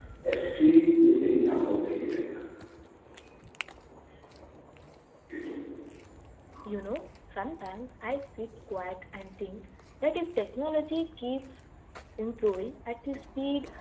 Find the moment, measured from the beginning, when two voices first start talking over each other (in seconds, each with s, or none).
none